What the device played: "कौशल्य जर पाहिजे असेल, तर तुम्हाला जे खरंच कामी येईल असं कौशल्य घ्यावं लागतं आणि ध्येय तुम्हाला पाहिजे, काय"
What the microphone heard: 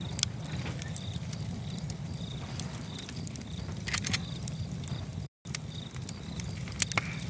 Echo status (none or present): none